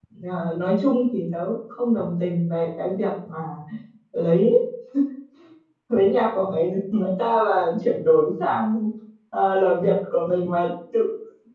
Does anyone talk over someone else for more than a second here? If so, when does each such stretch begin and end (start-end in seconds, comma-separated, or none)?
none